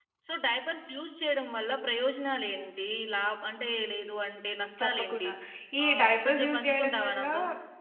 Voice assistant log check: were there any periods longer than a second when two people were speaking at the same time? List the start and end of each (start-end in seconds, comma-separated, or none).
5.9-7.2